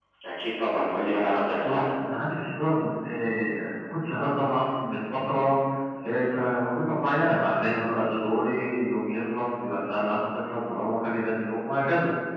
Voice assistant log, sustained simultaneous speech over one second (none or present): none